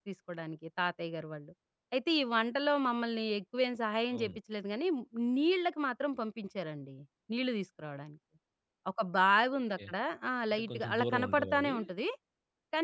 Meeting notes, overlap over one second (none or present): present